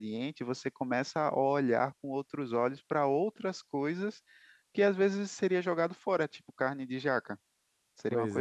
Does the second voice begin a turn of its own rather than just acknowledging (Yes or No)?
No